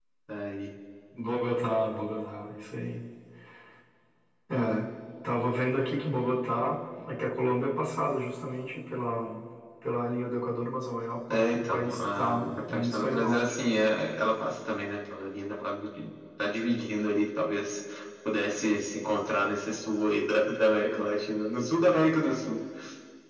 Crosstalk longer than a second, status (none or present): present